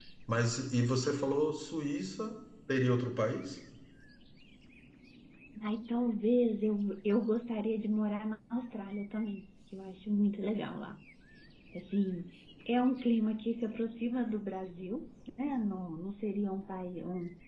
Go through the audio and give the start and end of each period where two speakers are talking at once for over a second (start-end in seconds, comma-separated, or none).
none